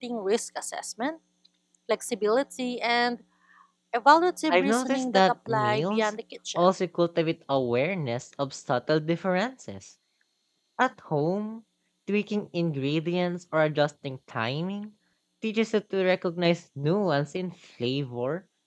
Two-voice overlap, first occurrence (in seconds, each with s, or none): 4.5 s